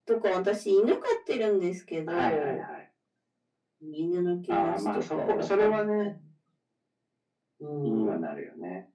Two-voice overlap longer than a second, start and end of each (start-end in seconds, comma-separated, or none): 4.5-6.1